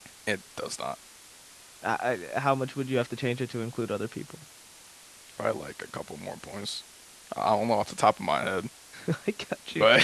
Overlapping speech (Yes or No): No